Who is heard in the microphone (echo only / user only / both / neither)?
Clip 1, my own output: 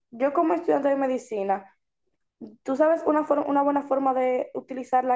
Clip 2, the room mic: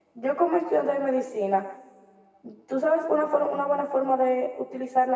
echo only